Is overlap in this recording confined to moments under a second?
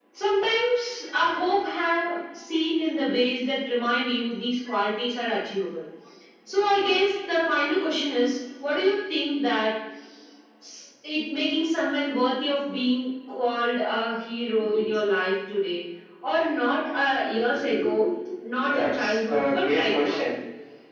No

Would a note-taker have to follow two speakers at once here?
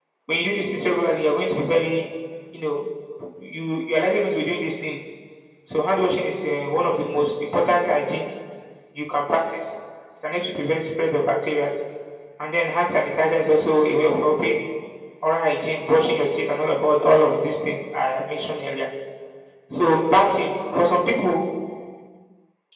No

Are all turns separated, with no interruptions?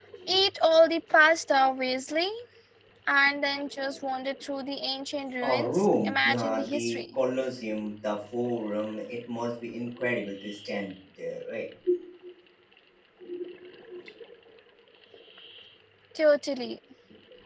No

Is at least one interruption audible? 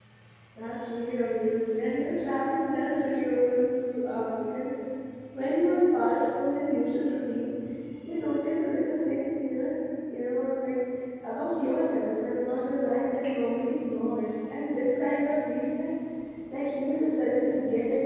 No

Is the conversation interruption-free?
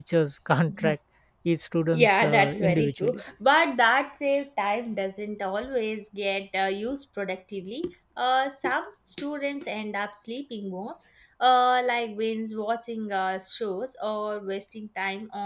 No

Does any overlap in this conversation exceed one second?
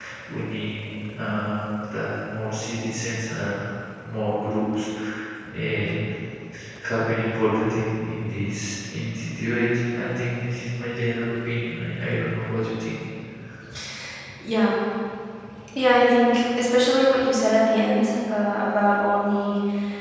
No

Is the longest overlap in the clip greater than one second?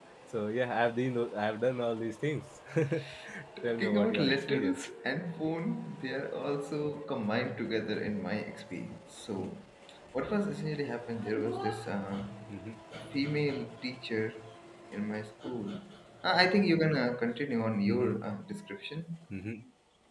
Yes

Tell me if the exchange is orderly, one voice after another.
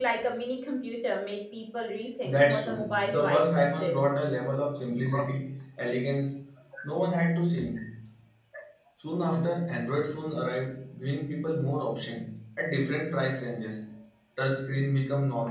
No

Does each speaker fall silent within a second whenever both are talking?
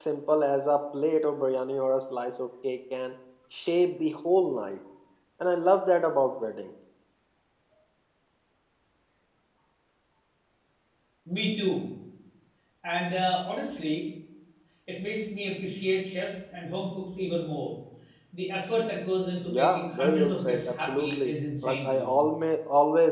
No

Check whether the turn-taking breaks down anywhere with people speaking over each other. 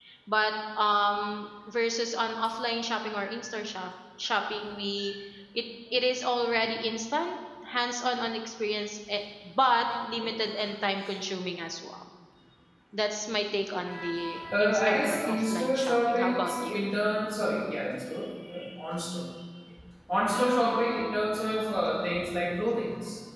Yes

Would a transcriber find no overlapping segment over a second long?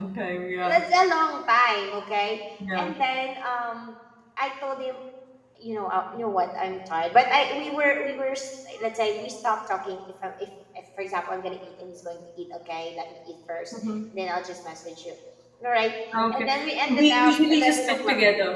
No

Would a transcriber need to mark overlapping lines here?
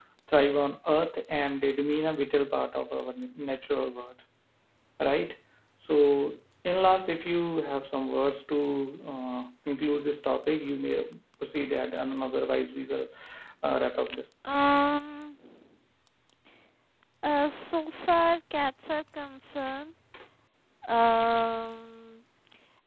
No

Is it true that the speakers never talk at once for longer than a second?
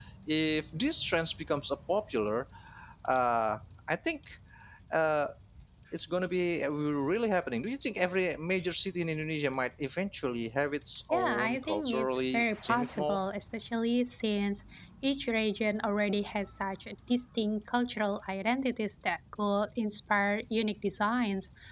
No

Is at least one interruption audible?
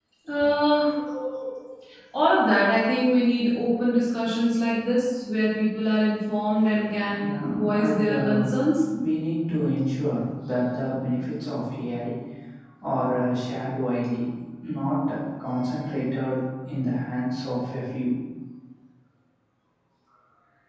Yes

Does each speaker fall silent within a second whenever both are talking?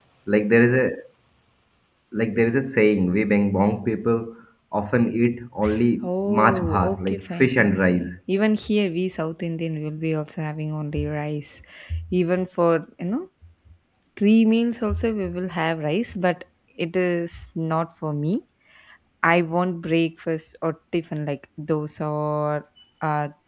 No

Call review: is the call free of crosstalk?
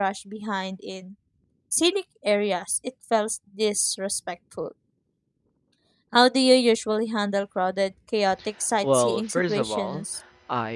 No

